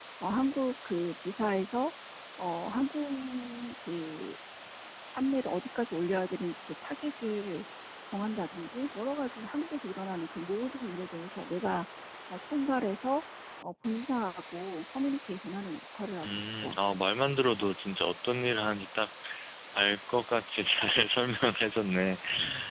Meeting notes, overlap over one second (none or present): none